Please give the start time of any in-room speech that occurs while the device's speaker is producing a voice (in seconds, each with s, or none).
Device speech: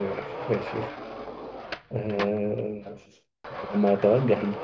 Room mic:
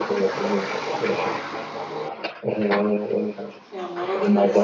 3.7 s